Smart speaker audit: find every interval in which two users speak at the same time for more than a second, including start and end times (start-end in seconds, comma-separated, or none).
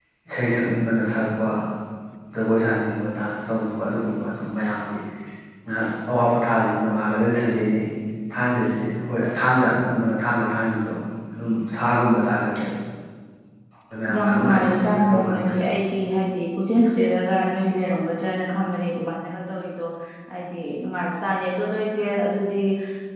14.1-15.6